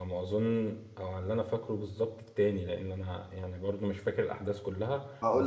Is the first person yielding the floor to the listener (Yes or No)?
Yes